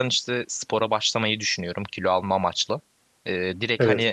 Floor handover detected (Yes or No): No